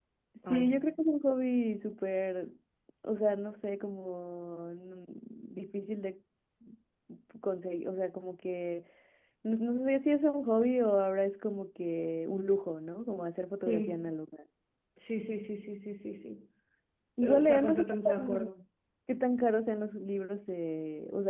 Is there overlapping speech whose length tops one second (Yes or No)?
Yes